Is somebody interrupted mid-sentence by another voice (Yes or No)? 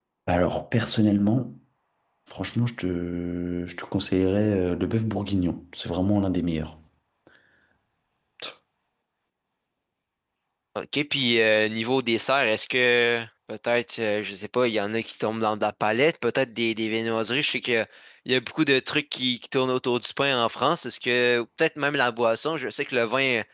No